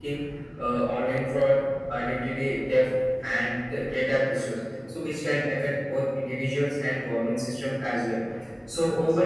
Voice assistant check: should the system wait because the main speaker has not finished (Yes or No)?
Yes